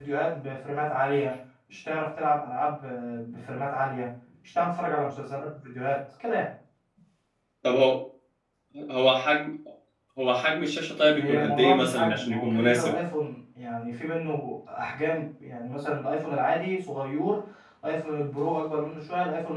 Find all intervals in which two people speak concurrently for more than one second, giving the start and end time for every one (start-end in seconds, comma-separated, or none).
11.1-12.9